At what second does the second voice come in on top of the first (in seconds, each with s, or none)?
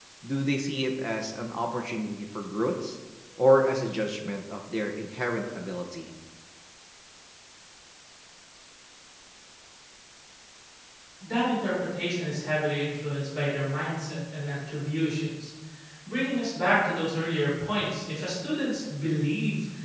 none